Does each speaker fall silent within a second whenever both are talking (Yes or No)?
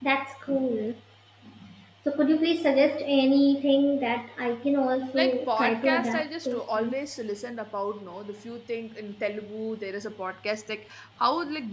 No